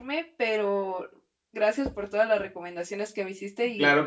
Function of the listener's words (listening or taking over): taking over